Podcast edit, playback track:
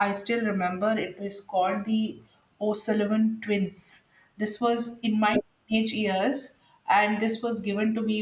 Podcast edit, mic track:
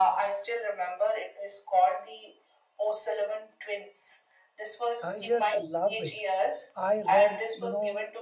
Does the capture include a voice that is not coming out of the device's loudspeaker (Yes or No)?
Yes